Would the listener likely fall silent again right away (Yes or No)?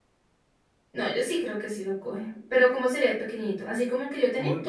No